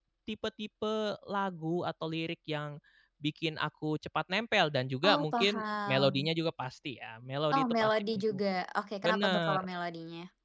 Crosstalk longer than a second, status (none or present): present